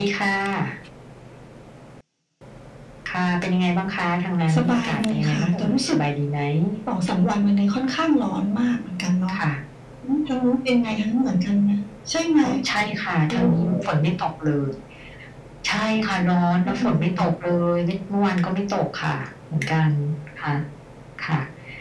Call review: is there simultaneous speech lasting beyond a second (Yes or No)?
Yes